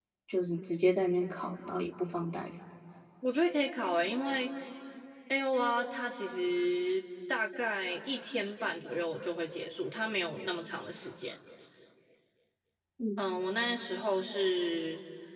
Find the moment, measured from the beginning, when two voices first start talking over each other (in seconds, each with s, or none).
none